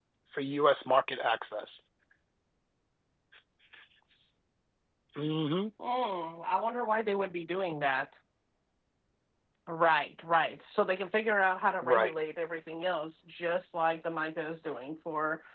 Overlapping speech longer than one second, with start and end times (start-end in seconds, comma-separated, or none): none